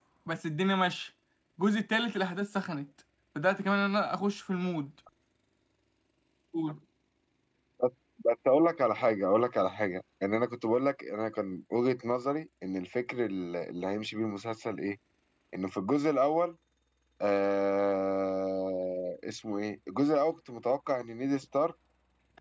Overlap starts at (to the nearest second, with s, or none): none